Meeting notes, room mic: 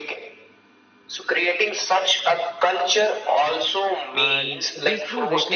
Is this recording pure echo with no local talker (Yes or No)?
No